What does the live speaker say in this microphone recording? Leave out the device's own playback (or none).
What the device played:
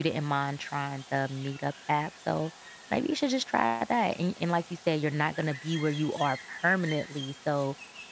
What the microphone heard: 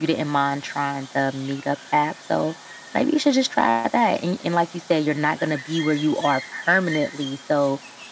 none